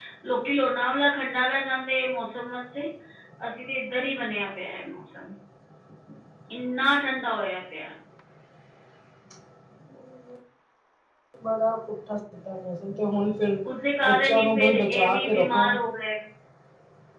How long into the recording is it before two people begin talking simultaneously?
14 s

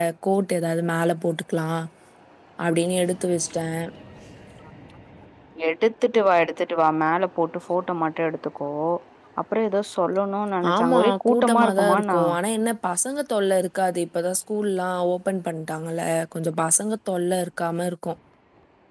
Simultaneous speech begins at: 11 s

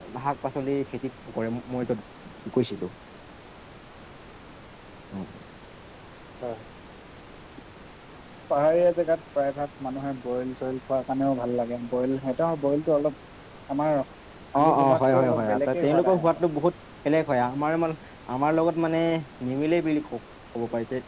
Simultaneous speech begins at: 15 s

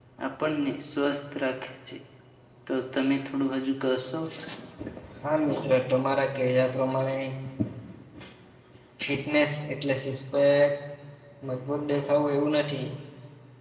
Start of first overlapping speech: none

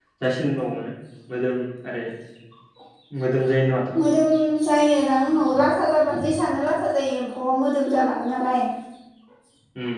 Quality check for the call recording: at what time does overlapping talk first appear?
none

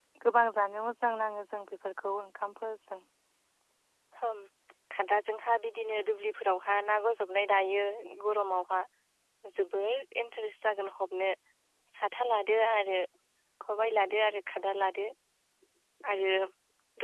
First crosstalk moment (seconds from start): none

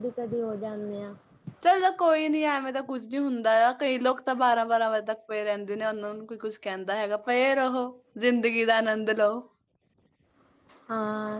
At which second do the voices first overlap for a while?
none

